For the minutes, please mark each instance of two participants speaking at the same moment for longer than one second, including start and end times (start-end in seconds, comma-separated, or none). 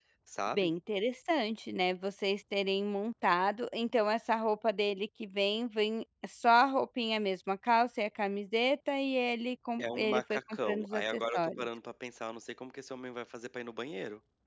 9.8-11.7